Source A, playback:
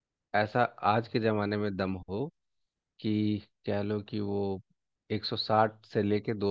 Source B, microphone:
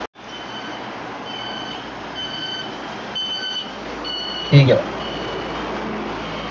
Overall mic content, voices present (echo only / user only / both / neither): user only